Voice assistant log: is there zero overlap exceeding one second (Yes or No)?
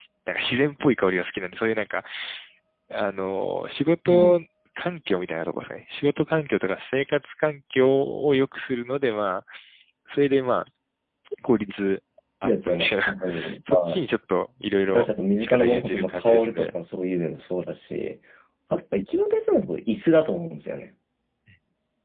No